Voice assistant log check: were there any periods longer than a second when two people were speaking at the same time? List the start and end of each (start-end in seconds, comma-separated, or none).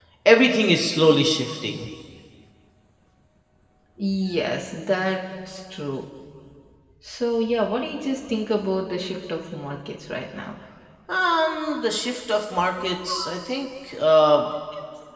none